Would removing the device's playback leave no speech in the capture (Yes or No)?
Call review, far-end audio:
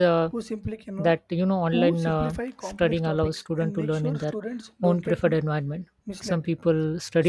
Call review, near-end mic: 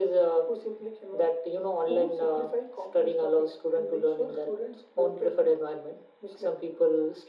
Yes